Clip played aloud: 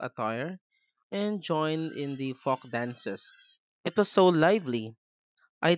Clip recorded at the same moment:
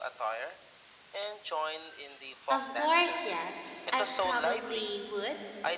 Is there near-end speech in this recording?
Yes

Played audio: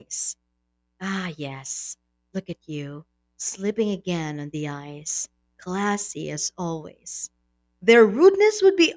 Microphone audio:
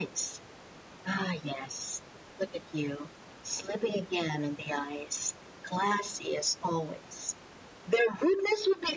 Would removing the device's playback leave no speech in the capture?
Yes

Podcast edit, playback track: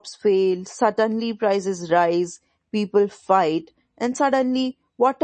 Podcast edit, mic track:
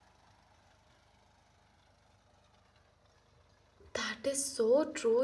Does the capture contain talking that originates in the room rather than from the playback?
Yes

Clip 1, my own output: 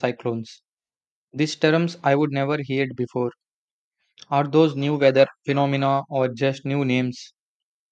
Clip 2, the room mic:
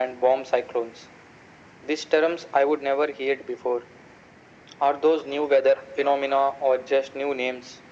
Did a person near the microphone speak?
No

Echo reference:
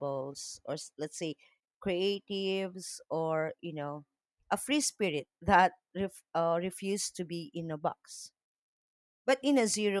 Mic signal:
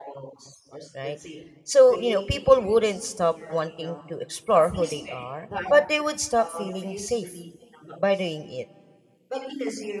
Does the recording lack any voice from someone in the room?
No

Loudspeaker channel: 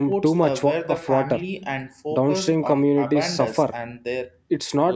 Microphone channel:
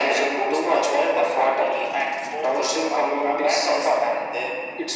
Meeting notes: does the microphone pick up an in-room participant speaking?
No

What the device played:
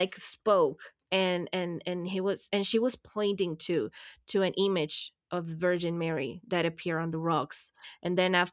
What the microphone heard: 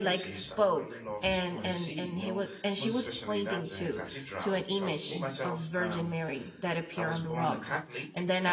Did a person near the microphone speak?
Yes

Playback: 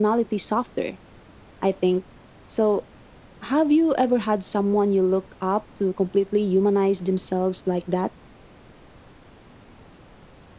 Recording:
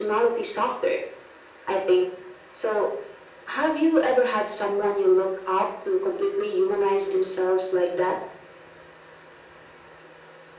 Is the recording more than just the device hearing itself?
No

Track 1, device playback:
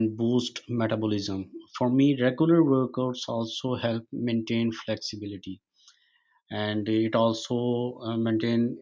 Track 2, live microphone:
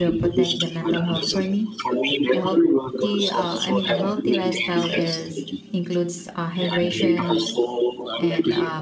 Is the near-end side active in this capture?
Yes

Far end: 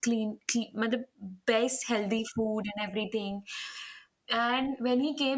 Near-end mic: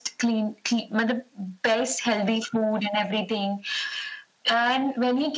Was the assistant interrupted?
No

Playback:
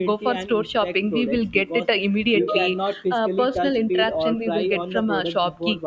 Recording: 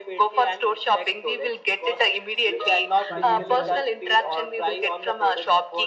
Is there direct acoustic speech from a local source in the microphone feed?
Yes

